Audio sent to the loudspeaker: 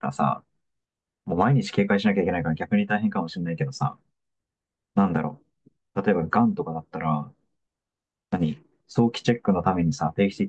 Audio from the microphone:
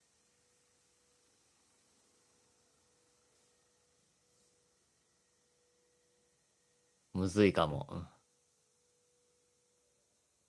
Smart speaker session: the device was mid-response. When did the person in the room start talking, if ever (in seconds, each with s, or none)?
7.1 s